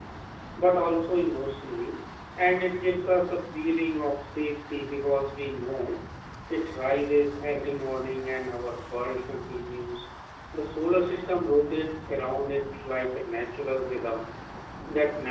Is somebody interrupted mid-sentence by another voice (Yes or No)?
No